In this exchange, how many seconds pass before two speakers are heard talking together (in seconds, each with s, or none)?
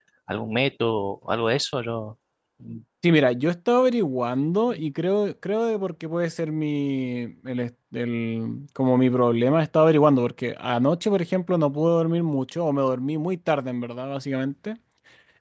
none